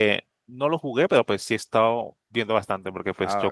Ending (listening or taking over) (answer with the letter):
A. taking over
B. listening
B